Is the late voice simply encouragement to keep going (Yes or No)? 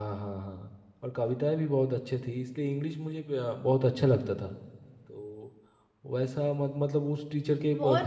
No